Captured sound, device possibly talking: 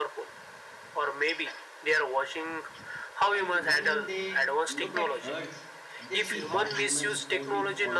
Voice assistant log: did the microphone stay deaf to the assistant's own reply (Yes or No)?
No